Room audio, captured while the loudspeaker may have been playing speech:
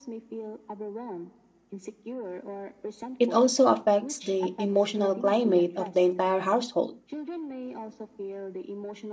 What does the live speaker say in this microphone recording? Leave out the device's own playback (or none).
It also affects the emotional climate of the entire household.